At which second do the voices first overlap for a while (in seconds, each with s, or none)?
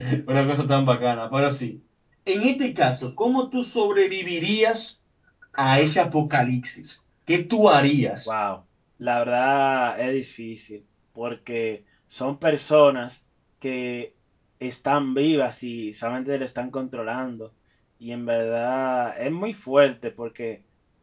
none